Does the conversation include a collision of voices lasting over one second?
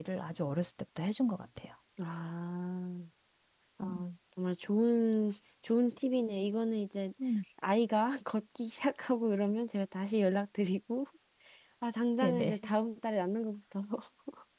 No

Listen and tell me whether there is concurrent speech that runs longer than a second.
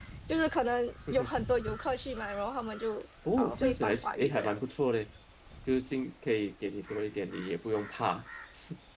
Yes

